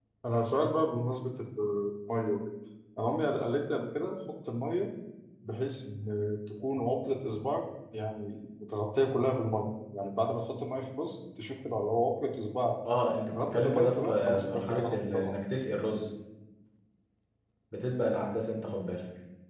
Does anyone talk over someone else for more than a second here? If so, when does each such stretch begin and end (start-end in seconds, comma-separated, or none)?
13.4-15.3